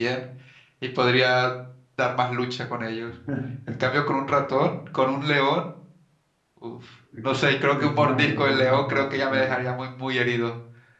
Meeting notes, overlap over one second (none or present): present